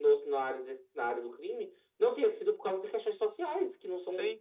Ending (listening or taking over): taking over